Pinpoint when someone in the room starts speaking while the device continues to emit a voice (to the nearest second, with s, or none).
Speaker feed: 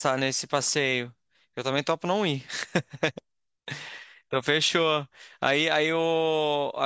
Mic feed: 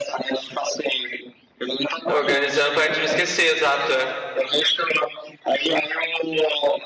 2 s